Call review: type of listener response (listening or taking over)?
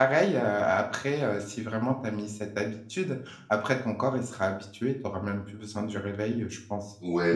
taking over